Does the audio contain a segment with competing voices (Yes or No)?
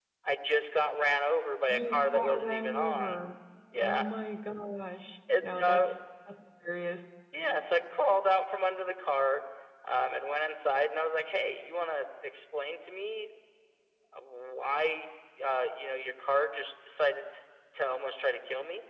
Yes